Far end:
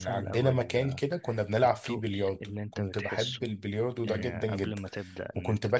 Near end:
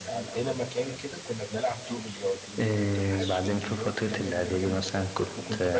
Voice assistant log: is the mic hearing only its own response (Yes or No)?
No